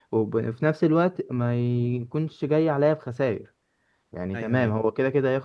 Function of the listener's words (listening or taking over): listening